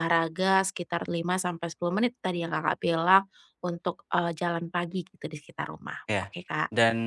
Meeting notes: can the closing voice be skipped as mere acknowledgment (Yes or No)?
No